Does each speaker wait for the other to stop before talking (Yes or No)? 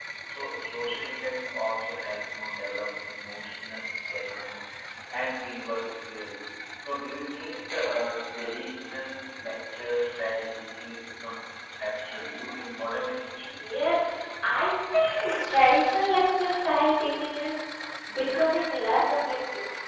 Yes